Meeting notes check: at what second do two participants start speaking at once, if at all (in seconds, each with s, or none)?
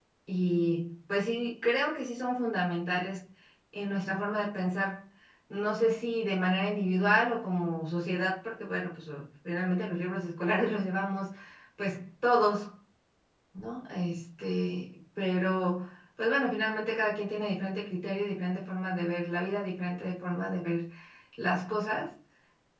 none